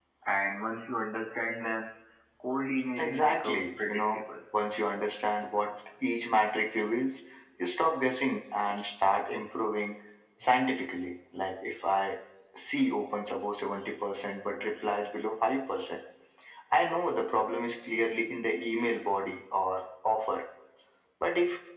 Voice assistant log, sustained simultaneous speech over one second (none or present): present